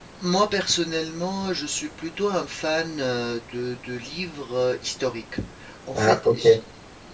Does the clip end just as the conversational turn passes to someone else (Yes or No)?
No